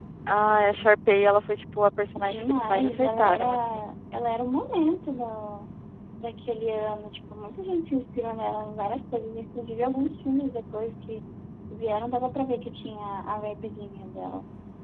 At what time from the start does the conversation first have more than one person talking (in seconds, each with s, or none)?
2.2 s